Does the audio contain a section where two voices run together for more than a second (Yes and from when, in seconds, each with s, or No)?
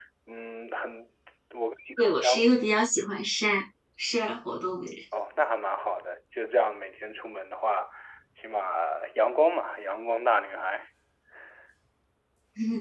No